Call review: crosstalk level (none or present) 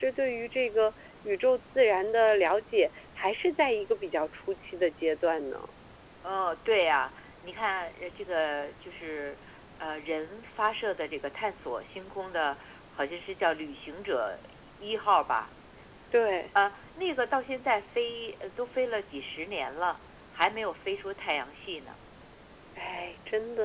none